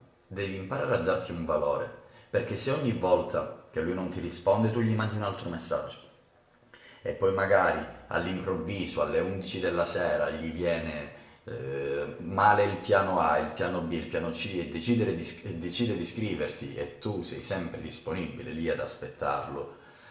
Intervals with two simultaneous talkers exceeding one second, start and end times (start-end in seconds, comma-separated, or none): none